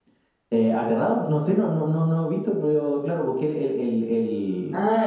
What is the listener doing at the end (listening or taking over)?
taking over